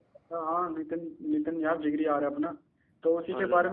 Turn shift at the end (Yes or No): No